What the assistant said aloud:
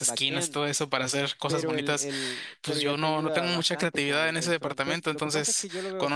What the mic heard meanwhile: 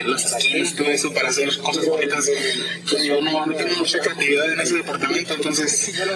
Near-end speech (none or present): none